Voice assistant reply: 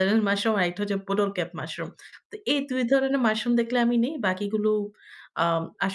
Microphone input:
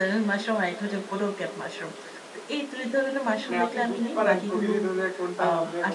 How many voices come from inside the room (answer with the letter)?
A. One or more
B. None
A